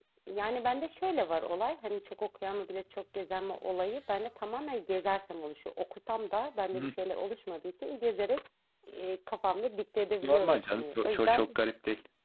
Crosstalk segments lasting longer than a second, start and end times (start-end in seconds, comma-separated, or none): 10.2-11.5